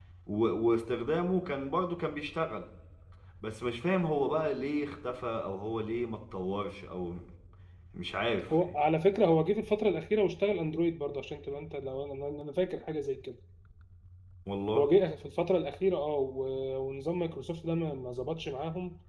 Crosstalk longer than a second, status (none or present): none